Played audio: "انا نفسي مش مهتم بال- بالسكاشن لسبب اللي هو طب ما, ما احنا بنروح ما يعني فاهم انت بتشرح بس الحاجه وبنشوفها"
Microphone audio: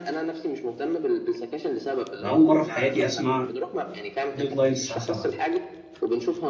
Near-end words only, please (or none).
انا اول مره في حياتي اسمع ديدلاين الساعه 7